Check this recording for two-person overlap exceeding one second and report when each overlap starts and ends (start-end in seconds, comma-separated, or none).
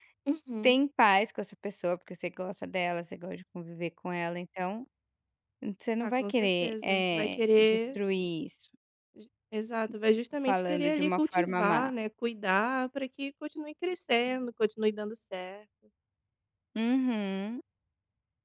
6.0-8.0, 10.5-11.9